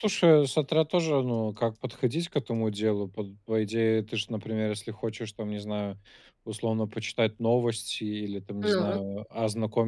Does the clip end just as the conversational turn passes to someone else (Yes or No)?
No